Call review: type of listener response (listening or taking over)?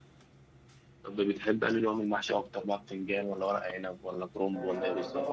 taking over